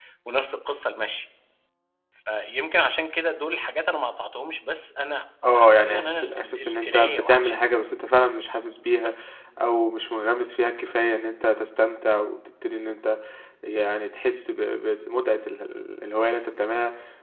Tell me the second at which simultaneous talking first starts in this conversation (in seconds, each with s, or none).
5.4 s